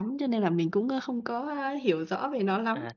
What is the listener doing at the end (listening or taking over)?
taking over